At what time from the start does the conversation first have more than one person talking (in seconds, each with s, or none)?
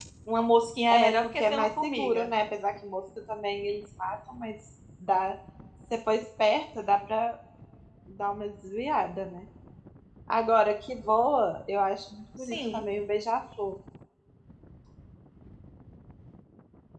0.9 s